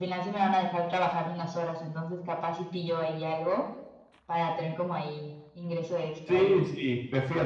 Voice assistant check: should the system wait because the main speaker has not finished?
No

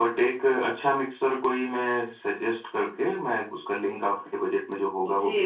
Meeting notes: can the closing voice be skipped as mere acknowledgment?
No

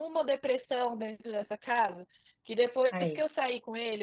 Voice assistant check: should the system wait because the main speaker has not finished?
Yes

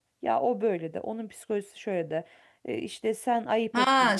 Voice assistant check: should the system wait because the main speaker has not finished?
No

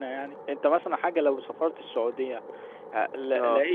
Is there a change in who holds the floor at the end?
No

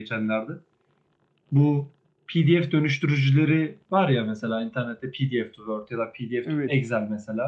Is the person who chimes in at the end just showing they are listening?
Yes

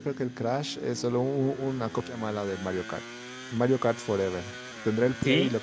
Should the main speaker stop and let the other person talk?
No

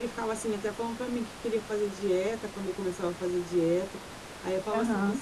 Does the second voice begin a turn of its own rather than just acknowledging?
No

